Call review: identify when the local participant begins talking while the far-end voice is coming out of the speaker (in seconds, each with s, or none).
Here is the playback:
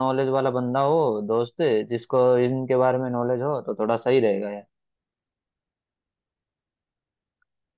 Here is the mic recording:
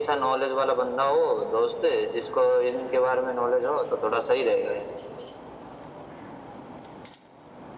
none